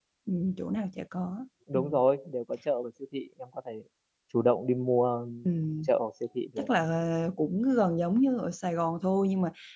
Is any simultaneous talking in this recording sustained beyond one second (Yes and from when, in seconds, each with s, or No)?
No